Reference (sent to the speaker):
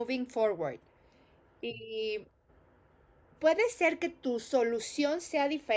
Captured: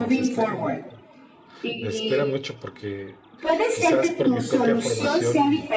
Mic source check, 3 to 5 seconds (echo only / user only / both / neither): both